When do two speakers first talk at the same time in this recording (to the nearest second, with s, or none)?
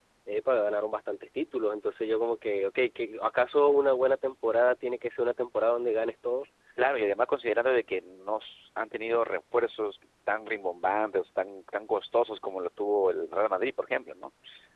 none